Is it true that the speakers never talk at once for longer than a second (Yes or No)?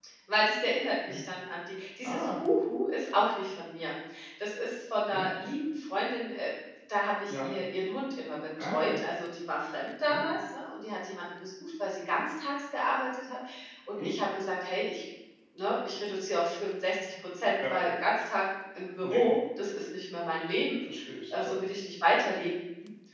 Yes